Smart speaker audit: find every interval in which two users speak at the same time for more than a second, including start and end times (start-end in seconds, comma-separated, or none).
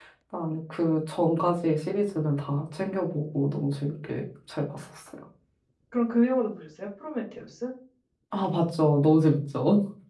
none